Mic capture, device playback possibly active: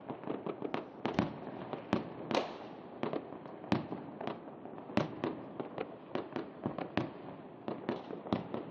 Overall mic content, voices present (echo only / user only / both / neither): neither